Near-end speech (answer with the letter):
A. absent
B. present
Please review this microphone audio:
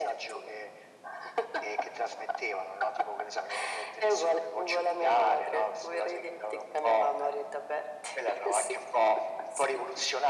A